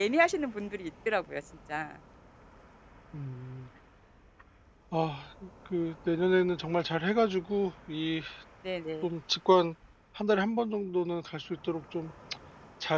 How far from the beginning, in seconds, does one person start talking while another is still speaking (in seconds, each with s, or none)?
none